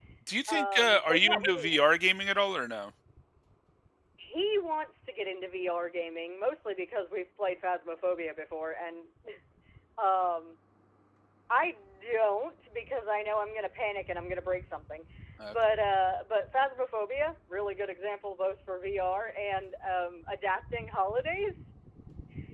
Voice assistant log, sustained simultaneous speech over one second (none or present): present